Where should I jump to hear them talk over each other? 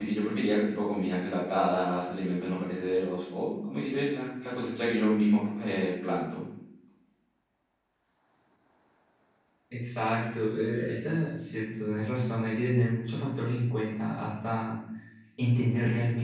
none

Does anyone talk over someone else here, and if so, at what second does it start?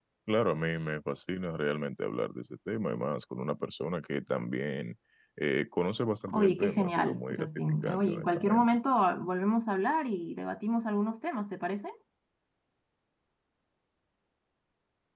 6.3 s

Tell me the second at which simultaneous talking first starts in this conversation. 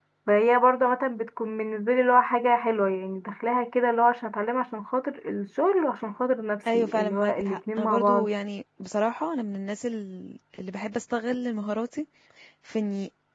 6.7 s

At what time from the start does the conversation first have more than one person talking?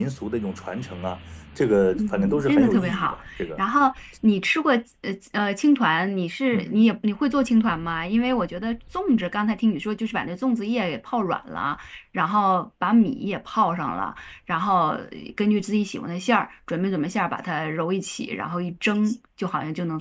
1.9 s

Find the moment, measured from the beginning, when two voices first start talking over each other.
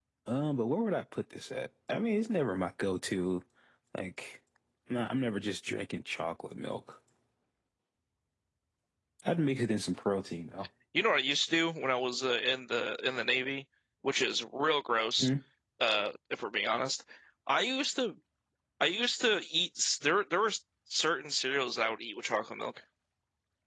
none

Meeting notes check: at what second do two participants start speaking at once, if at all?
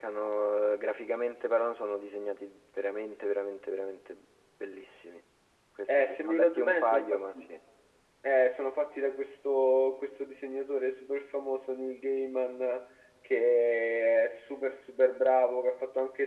6.0 s

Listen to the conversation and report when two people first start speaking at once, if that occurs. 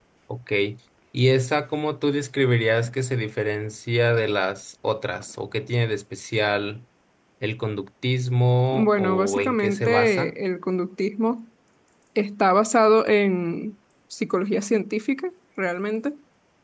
8.7 s

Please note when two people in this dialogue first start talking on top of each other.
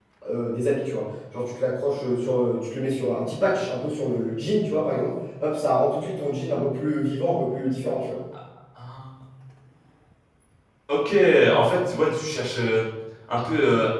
none

